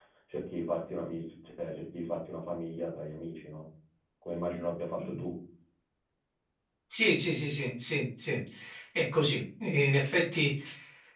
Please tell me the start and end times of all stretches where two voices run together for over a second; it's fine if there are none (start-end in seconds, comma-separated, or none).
none